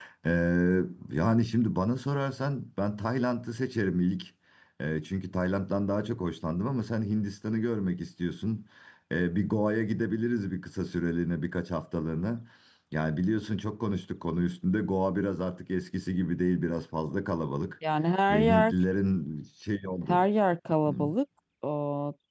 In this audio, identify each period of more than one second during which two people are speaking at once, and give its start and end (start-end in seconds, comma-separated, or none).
none